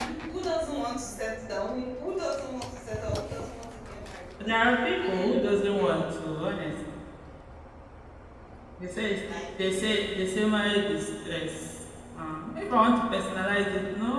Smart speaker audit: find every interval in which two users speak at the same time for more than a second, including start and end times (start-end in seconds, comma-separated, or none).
5.0-6.3